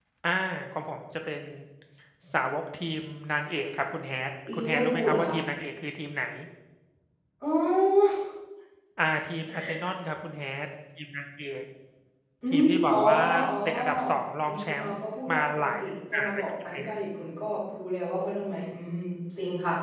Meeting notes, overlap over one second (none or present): present